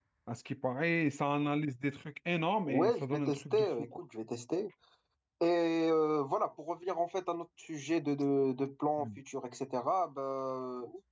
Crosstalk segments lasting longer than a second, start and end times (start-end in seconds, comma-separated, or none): 2.6-4.0